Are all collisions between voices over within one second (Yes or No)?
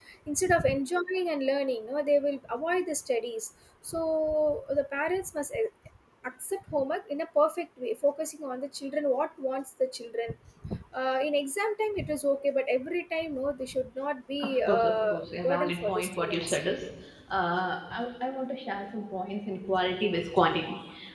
No